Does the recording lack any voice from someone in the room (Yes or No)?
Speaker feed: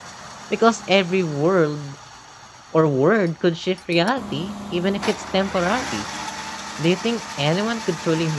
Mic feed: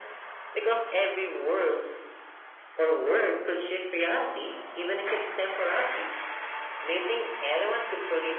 Yes